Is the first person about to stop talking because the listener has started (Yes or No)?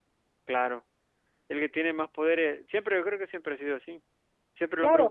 No